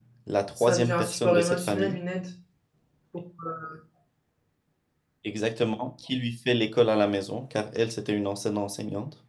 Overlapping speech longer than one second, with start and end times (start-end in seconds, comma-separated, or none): 0.6-2.0